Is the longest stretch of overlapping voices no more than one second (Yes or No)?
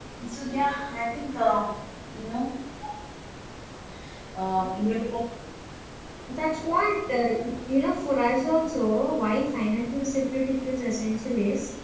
Yes